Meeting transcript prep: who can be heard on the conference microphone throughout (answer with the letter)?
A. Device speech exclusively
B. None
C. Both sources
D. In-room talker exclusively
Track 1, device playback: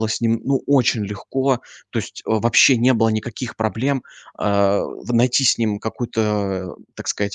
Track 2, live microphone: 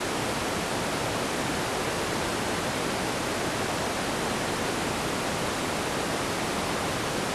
B